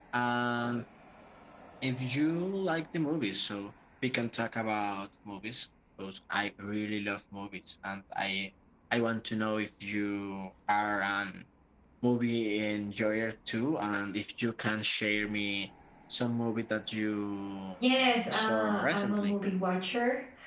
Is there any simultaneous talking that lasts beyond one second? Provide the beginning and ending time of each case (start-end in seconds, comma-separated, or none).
17.9-19.4